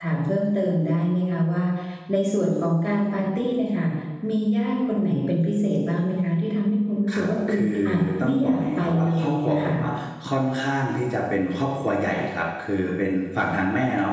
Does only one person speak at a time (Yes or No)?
No